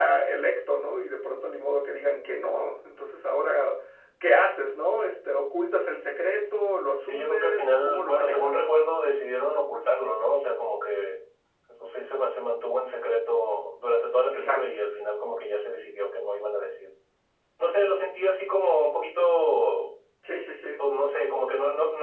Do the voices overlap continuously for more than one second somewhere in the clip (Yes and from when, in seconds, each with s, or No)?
Yes, from 7.0 s